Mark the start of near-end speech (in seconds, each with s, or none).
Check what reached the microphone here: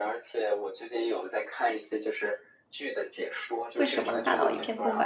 3.8 s